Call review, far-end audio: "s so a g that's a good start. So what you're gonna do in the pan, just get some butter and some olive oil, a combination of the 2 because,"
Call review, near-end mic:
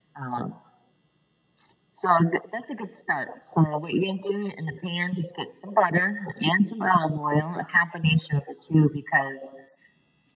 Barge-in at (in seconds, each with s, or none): none